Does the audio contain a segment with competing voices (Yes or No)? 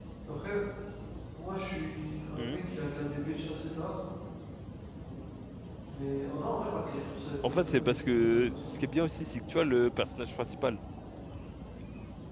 Yes